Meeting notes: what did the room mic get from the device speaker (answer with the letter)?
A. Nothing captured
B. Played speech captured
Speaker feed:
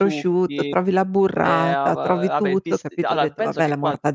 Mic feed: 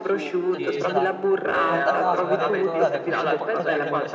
B